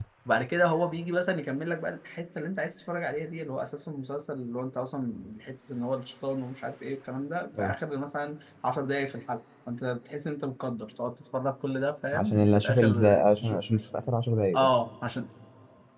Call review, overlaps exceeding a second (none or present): present